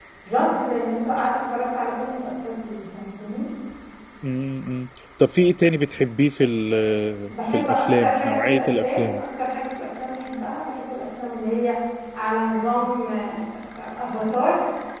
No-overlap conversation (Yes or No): No